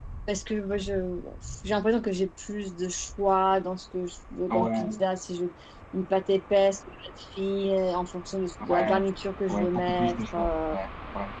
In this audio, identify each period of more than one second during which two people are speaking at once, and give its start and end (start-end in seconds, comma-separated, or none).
9.5-10.8